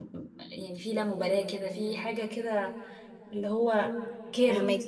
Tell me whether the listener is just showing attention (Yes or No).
No